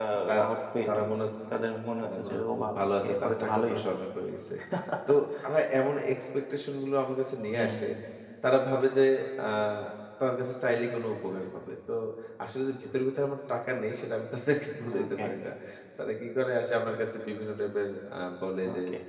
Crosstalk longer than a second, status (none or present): present